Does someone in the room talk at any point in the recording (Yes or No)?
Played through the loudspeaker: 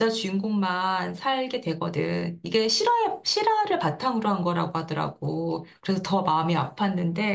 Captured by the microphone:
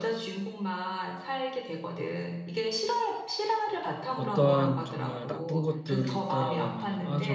Yes